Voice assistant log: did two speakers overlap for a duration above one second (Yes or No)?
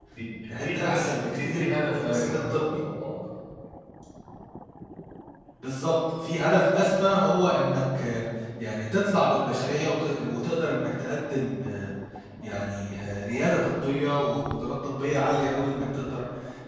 Yes